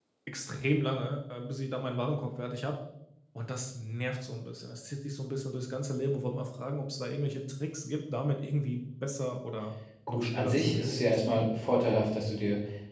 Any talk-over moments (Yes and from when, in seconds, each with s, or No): Yes, from 10.1 s